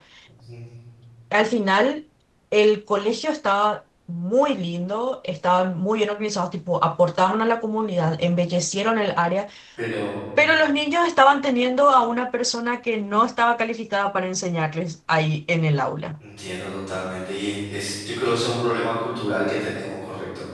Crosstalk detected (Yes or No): No